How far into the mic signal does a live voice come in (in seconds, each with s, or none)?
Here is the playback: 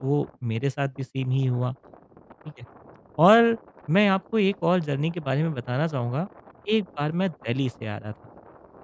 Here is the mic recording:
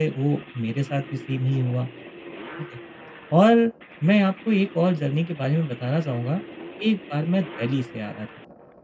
none